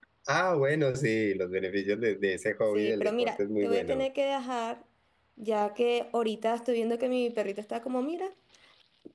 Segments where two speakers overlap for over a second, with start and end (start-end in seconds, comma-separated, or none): 2.7-4.0